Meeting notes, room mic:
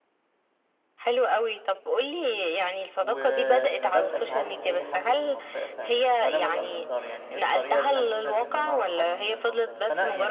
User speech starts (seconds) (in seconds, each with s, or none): 3.0 s